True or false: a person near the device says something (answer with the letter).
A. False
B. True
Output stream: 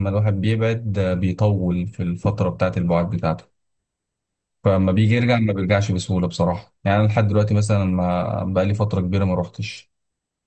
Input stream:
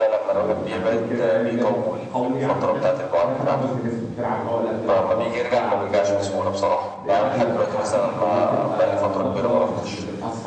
B